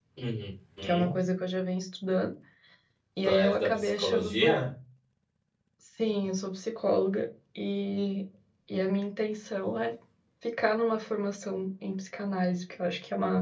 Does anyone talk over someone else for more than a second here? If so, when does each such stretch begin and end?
3.2-4.6

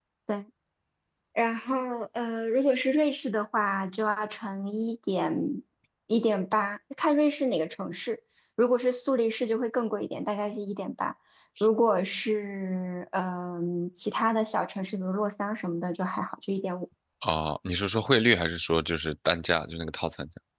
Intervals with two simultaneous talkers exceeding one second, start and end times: none

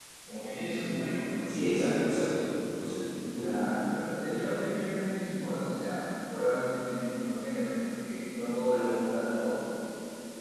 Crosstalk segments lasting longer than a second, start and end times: none

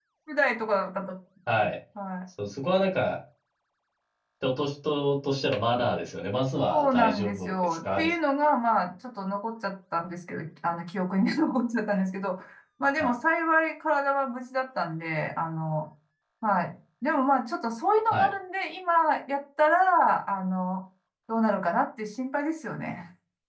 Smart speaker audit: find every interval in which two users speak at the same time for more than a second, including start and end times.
6.7-8.1

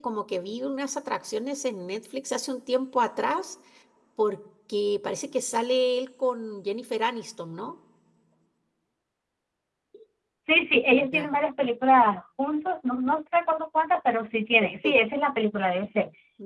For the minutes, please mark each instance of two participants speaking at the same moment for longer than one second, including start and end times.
none

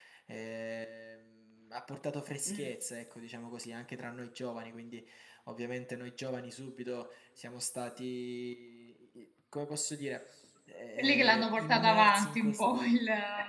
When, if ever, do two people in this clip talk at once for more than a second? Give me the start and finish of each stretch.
11.0-12.7

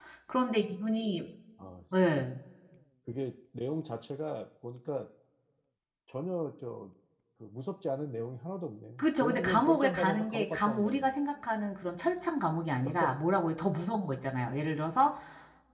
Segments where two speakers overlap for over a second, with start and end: 9.0-11.1

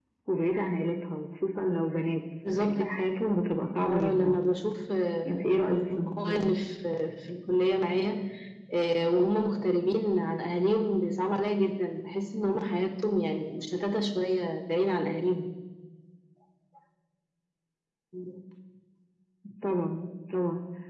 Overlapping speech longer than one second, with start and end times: 5.3-6.5

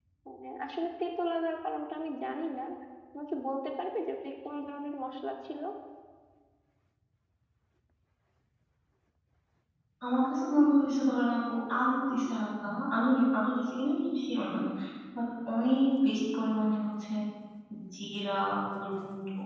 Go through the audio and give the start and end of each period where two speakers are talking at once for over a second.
none

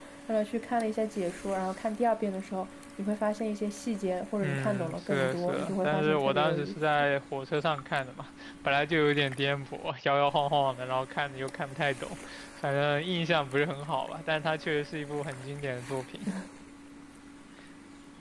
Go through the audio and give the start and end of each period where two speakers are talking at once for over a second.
4.4-6.8

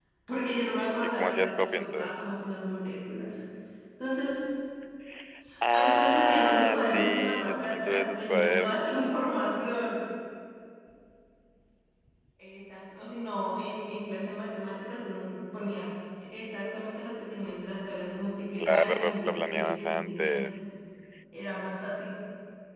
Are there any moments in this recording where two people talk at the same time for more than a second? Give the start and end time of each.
1.0-2.2, 5.7-9.1, 18.6-20.5

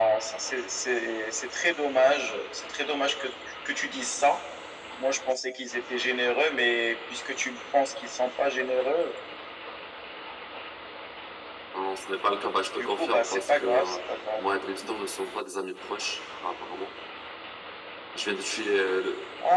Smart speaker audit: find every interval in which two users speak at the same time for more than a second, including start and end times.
12.8-14.0

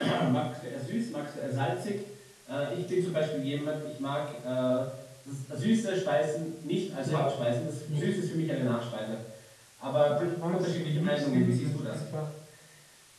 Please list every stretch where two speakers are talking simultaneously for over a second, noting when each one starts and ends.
10.1-12.0

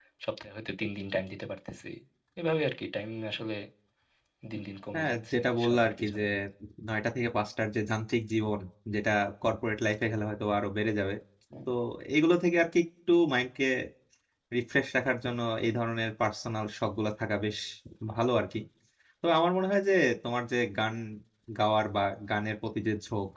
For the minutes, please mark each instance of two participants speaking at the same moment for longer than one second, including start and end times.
4.9-6.2

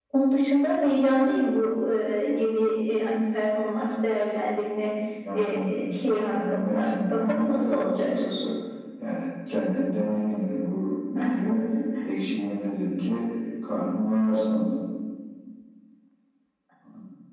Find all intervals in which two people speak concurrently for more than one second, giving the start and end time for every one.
6.3-8.1

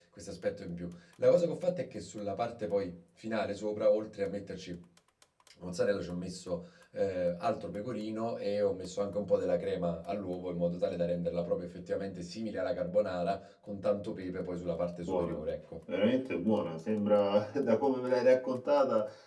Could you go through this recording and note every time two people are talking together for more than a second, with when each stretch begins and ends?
none

